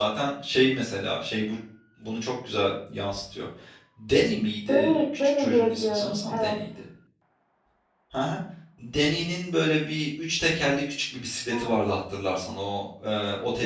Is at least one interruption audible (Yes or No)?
Yes